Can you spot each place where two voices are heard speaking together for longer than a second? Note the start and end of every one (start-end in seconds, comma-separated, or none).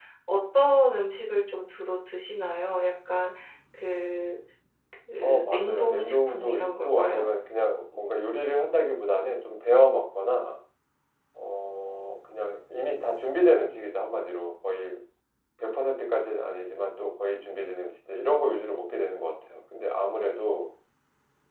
5.2-7.3